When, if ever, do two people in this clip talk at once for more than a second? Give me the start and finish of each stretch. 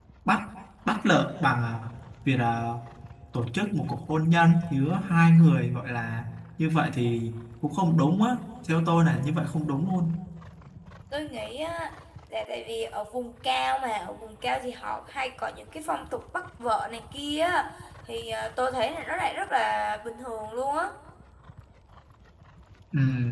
none

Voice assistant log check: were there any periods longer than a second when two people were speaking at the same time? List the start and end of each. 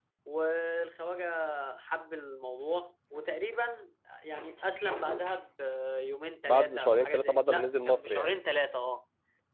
6.5-8.4

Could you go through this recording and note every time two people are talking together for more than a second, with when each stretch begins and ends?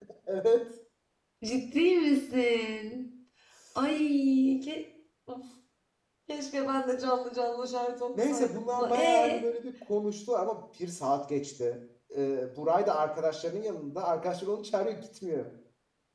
8.1-9.4

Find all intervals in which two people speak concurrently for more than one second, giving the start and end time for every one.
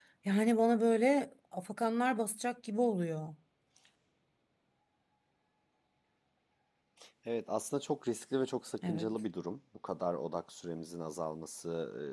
none

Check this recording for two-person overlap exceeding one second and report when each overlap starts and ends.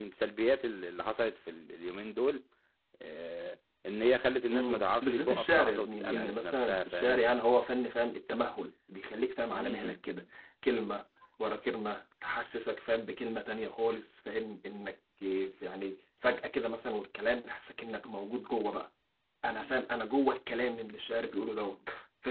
4.5-7.2

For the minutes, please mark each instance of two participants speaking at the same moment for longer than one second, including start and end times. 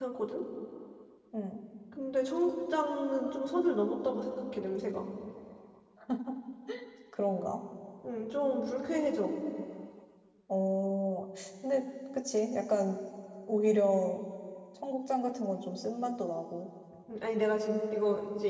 none

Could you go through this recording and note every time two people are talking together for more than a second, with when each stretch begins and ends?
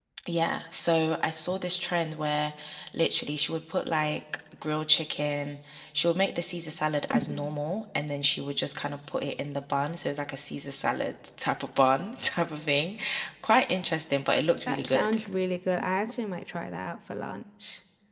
none

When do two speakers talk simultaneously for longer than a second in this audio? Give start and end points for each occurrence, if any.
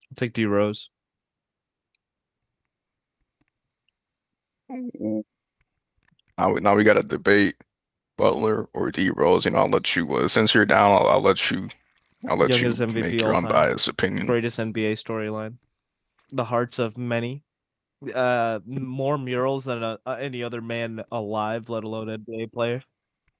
12.4-13.7

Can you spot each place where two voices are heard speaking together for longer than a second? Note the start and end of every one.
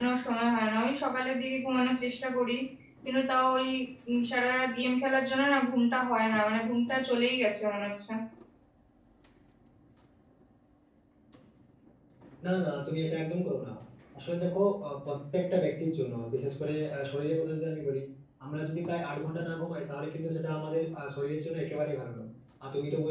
none

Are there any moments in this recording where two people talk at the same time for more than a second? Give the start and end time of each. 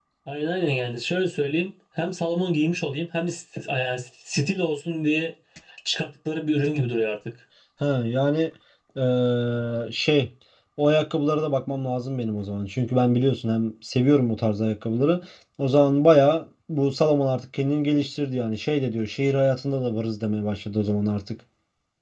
none

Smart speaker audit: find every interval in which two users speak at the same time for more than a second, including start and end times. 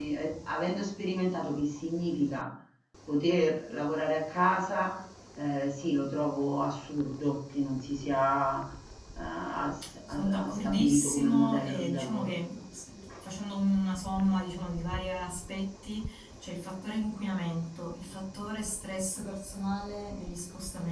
10.1-12.3

